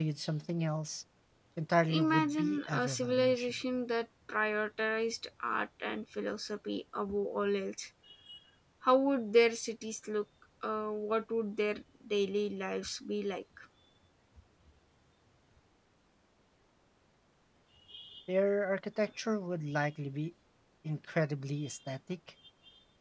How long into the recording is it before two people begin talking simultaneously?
1.9 s

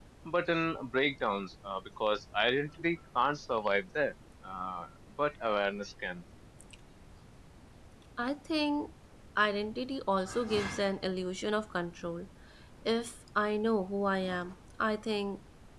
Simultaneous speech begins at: none

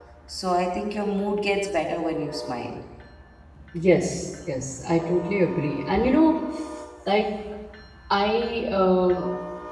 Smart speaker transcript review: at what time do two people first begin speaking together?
none

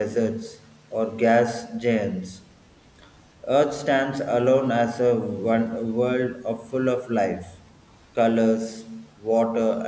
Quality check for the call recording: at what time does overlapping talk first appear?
none

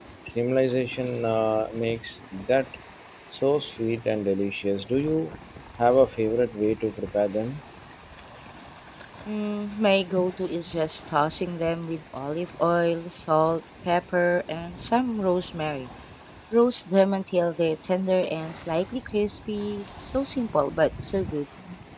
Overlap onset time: none

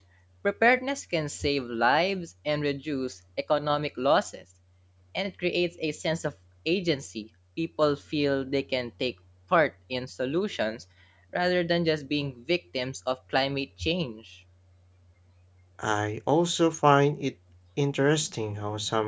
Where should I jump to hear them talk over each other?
none

